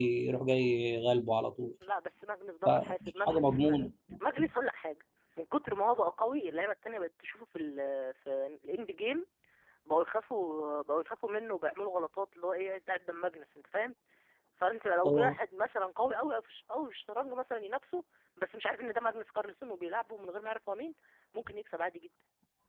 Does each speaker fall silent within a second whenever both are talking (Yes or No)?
No